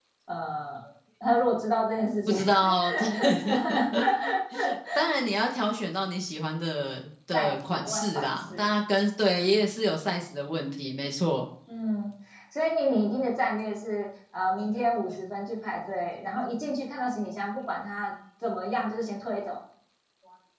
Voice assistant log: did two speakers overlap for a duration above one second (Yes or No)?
Yes